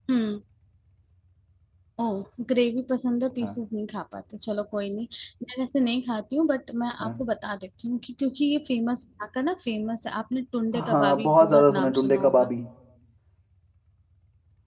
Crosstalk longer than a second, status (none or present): present